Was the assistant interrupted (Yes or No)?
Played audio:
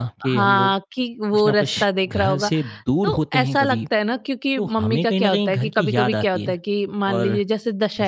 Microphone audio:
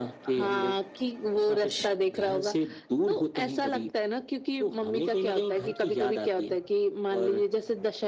No